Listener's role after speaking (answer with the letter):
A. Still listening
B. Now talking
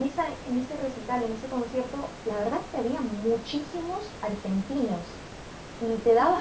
A